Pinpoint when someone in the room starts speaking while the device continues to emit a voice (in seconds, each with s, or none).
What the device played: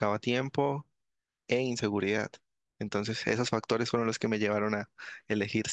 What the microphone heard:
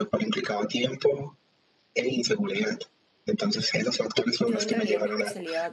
4.4 s